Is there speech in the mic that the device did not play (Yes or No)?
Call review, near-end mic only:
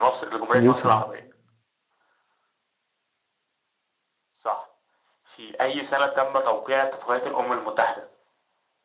Yes